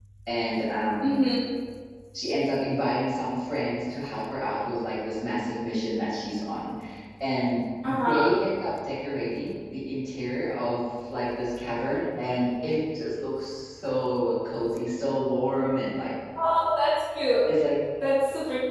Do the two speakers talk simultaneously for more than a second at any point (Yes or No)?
No